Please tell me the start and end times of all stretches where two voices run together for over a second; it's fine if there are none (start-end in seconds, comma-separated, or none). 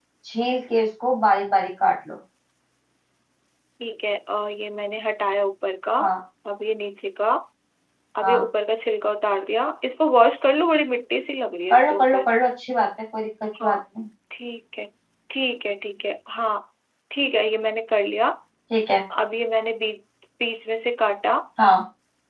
none